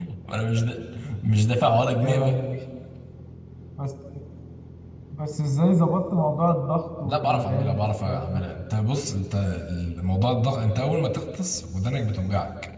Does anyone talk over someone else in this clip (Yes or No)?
Yes